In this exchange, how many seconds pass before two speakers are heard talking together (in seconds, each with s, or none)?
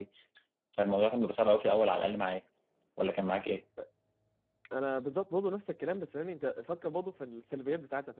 none